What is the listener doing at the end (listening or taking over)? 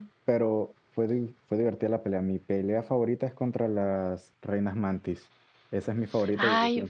taking over